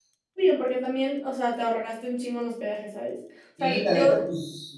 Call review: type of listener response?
taking over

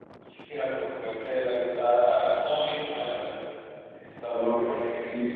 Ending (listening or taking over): taking over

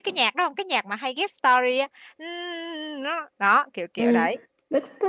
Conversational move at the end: taking over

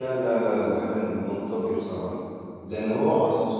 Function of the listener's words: listening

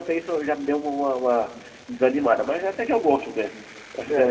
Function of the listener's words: taking over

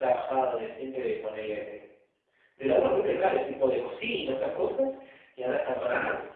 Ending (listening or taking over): listening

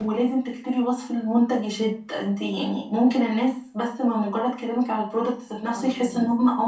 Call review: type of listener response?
listening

